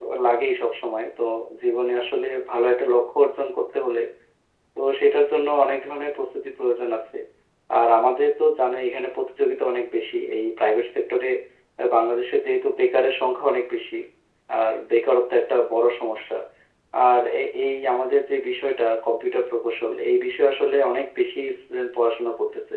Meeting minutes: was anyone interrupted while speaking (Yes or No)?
No